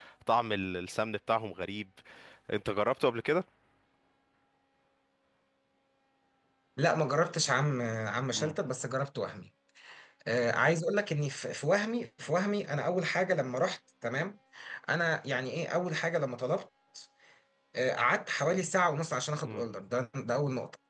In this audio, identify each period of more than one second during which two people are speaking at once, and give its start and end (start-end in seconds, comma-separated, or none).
none